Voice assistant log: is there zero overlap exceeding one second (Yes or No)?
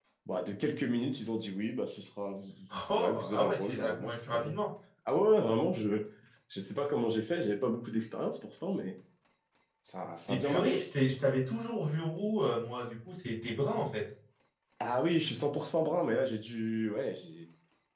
No